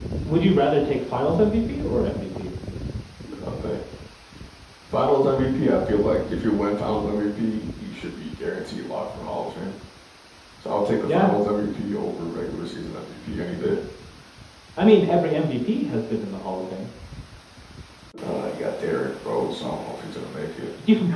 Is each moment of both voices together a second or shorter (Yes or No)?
Yes